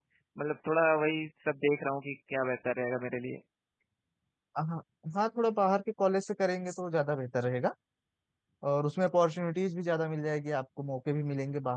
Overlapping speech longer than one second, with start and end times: none

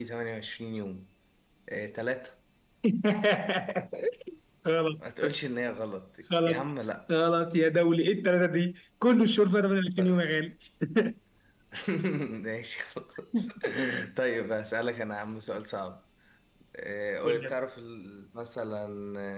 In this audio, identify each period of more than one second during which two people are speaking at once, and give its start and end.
none

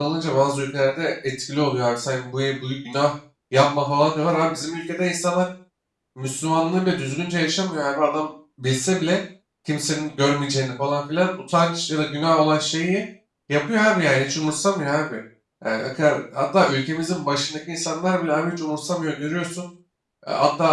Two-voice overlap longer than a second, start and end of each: none

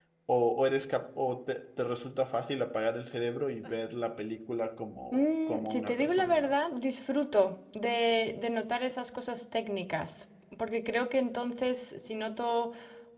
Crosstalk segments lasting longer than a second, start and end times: 5.1-6.6

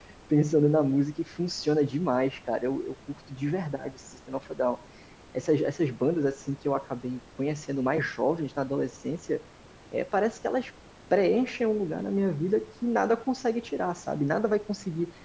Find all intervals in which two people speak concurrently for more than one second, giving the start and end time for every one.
none

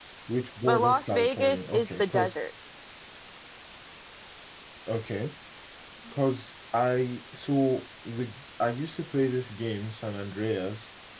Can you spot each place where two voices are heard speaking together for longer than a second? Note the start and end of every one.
0.6-2.4

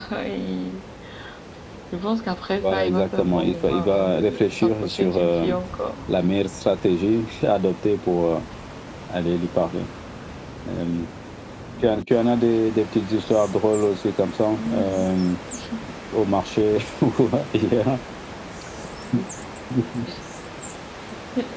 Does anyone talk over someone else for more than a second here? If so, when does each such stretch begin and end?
2.6-5.5

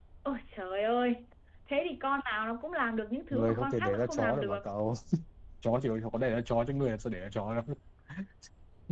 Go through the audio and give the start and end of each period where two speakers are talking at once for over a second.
3.3-4.6

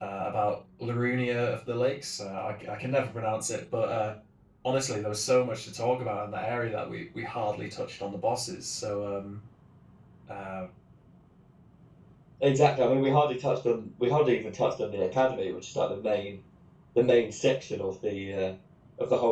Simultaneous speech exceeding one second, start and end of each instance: none

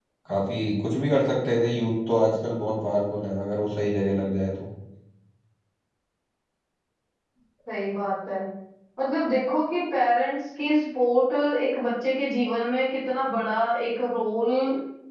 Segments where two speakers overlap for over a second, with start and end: none

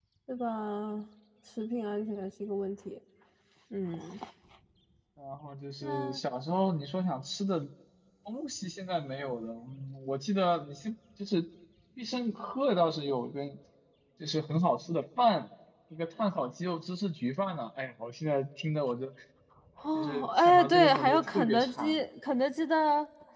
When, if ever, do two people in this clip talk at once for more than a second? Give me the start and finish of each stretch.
19.9-22.0

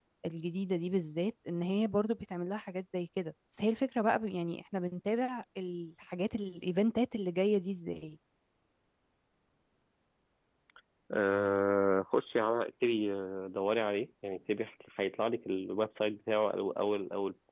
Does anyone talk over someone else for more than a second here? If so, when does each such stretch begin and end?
none

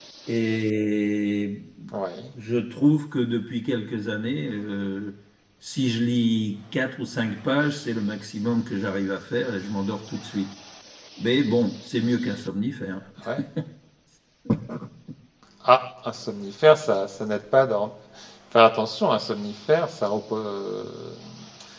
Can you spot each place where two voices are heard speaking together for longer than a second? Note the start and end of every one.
none

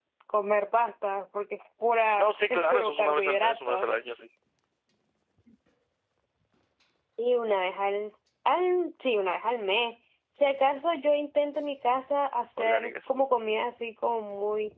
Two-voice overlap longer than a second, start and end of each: 2.2-3.9

